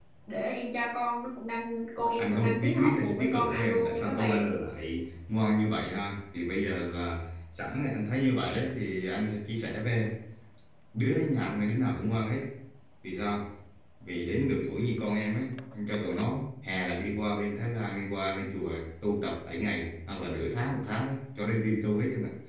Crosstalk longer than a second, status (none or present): present